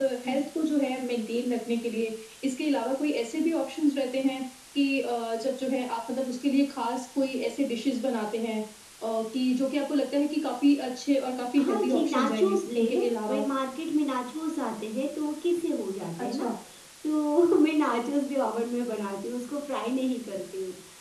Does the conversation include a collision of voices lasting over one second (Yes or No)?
Yes